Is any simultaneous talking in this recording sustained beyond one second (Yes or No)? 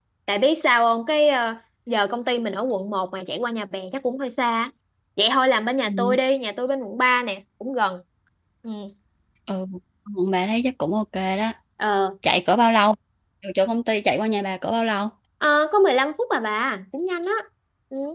No